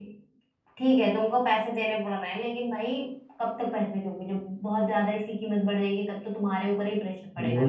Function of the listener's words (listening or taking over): taking over